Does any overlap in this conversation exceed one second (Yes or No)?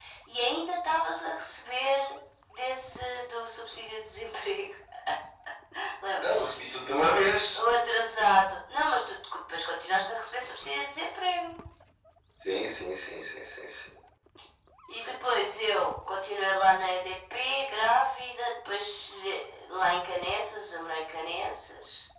No